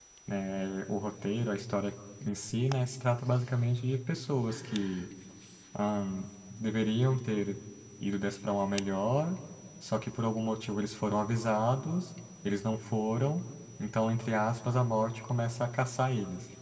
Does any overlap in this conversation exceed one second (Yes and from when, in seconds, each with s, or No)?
No